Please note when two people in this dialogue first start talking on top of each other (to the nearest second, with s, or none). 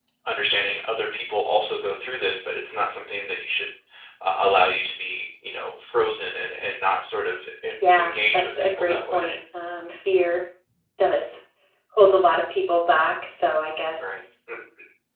8 s